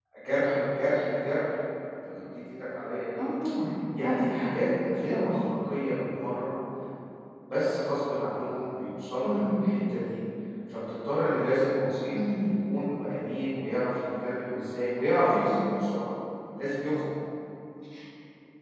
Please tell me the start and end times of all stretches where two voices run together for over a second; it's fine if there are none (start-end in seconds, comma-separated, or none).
none